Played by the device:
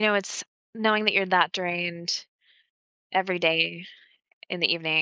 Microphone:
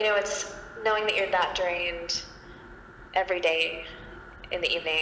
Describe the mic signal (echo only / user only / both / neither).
echo only